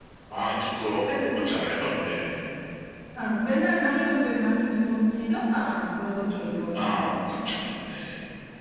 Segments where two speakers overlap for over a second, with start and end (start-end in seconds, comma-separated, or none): none